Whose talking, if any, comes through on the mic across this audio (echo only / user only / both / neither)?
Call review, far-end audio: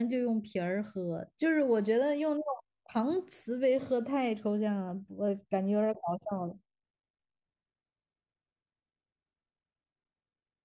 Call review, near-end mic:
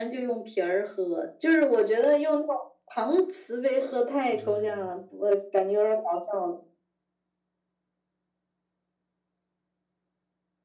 both